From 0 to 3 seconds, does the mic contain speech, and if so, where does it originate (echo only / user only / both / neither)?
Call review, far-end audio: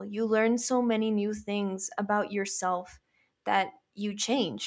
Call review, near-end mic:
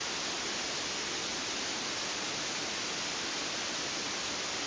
neither